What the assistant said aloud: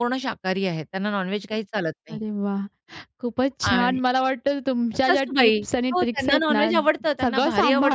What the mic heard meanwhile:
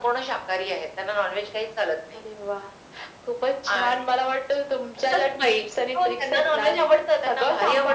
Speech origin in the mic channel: echo only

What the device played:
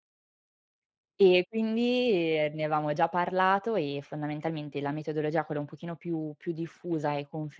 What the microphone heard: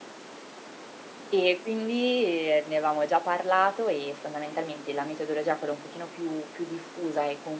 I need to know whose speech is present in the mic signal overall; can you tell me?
echo only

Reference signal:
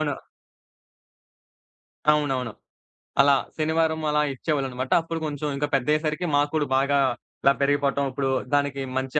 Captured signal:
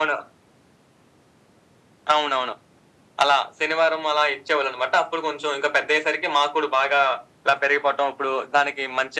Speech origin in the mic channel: echo only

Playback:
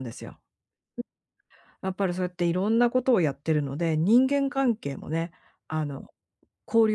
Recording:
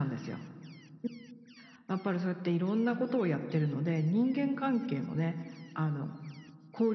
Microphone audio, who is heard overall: echo only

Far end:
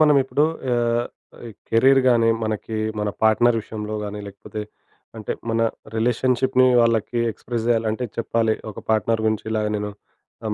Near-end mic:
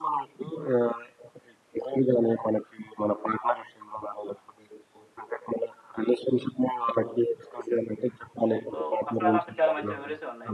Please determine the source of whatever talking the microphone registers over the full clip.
both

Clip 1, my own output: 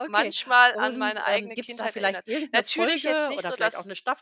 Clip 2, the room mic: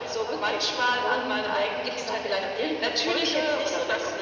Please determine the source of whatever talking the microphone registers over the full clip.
echo only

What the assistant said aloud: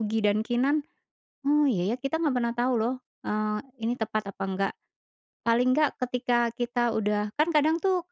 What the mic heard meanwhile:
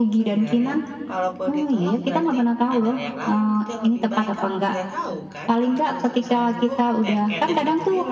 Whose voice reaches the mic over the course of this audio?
both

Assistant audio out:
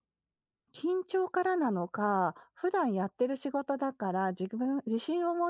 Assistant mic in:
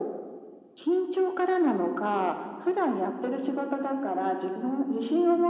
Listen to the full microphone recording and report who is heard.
echo only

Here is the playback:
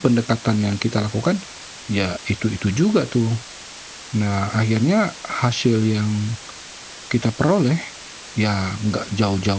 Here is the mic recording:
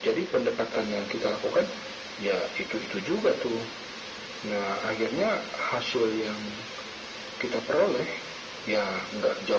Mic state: echo only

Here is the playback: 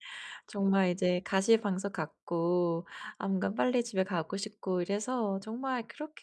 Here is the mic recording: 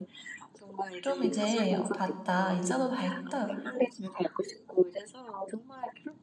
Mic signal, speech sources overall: both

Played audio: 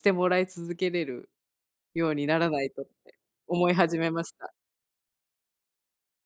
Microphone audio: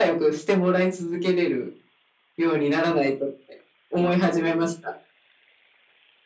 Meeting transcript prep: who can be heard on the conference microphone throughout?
echo only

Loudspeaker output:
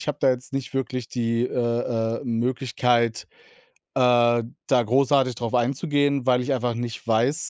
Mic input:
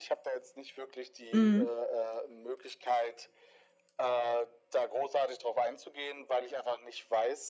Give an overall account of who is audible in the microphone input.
both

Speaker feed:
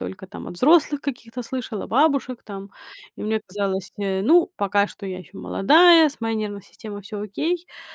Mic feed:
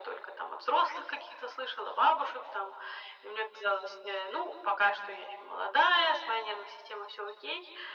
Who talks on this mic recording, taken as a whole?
echo only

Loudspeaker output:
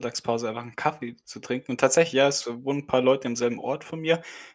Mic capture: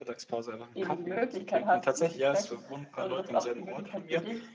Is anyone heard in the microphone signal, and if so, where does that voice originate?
both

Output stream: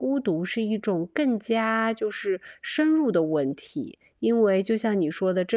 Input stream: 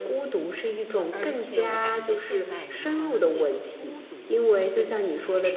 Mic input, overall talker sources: both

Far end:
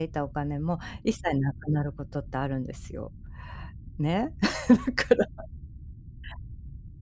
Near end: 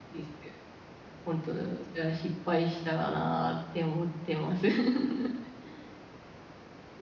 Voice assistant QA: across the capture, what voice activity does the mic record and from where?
user only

